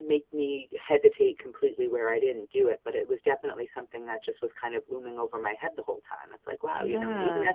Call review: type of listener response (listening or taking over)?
listening